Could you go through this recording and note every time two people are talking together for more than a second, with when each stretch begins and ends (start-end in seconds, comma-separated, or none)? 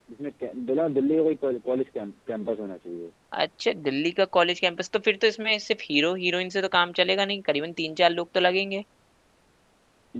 none